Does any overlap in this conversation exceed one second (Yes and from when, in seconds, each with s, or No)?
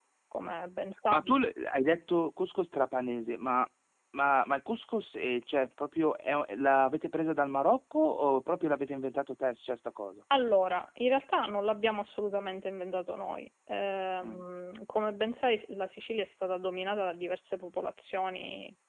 No